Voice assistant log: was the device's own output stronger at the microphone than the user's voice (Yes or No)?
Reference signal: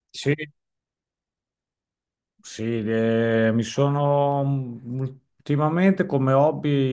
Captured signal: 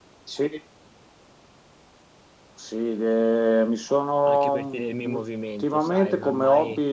Yes